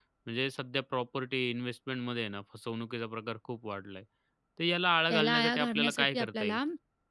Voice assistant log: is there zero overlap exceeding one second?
No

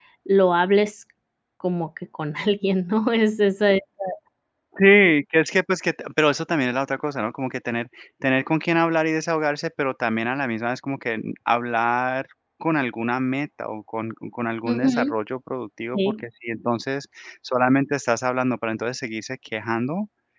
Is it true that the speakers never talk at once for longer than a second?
Yes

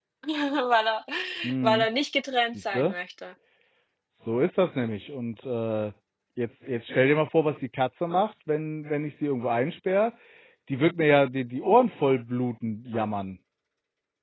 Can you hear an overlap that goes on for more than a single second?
No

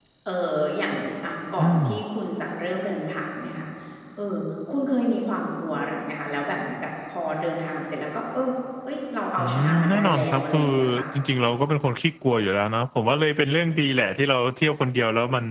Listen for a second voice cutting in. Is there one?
Yes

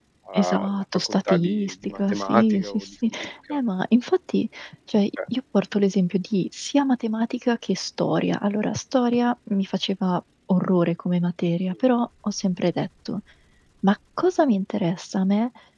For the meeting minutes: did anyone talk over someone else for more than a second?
Yes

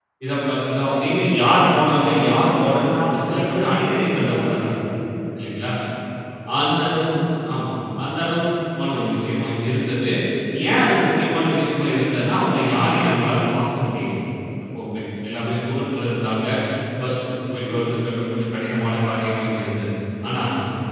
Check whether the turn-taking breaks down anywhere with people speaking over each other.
Yes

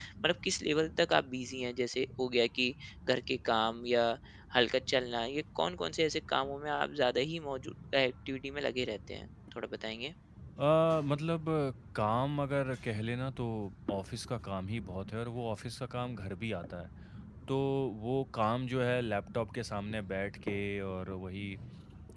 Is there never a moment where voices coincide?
Yes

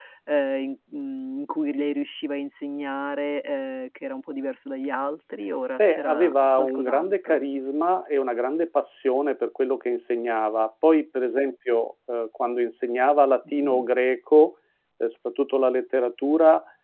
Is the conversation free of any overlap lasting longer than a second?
No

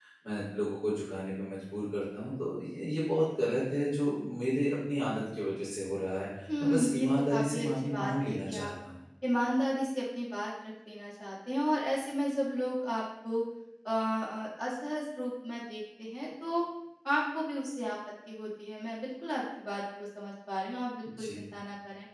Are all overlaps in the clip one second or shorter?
No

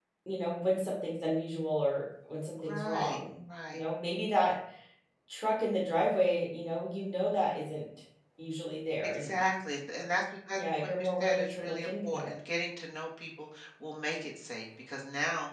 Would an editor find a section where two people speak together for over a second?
Yes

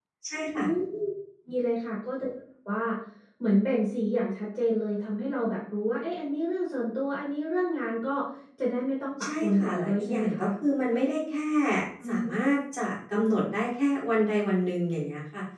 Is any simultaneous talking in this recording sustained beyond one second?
Yes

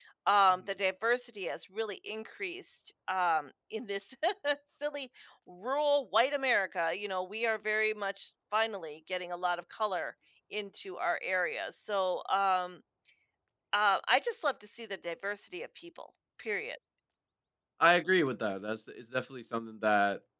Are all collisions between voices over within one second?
Yes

